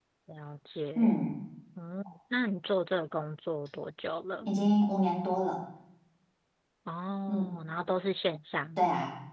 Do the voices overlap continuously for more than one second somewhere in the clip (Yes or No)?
No